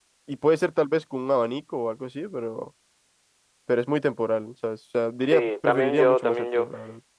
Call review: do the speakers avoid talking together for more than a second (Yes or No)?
No